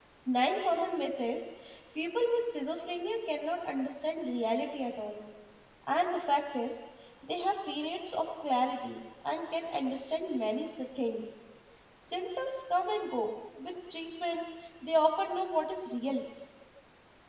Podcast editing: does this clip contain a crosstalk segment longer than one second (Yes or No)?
No